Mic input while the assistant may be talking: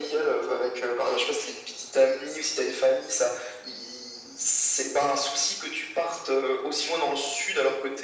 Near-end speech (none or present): none